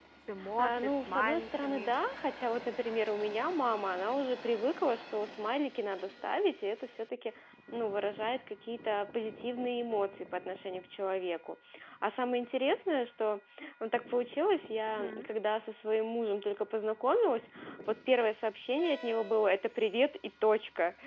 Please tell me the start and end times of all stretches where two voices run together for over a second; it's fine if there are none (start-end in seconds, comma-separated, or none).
0.6-1.9